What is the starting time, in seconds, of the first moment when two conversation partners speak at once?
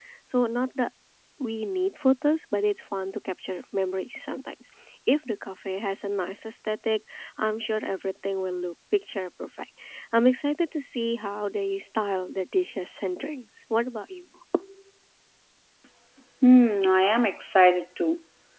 none

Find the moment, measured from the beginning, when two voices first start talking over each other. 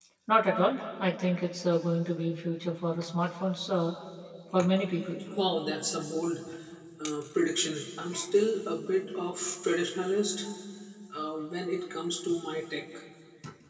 none

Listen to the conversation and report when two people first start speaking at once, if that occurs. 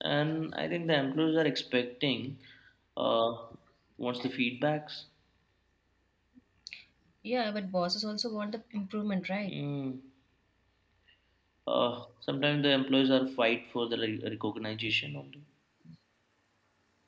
none

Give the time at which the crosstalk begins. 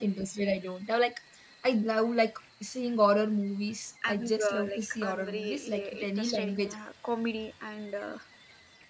4.0 s

